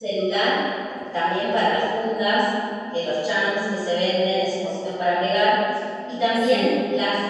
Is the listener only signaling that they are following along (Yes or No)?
Yes